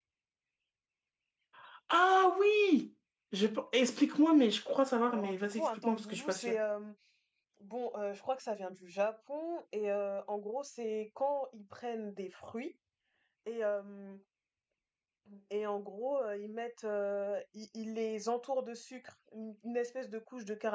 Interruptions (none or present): present